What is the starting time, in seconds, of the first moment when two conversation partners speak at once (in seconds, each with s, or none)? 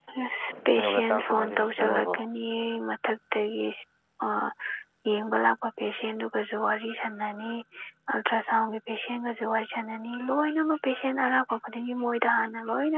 0.7 s